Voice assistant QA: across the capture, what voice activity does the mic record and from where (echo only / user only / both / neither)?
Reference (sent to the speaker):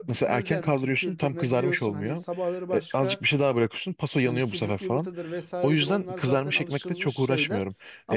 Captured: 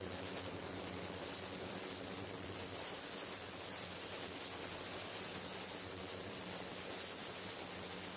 neither